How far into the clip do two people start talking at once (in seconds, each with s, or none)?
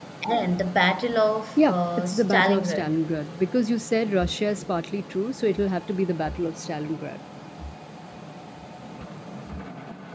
1.6 s